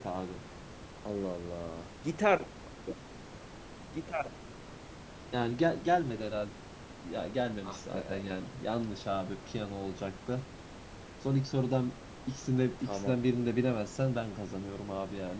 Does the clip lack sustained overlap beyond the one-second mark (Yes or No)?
Yes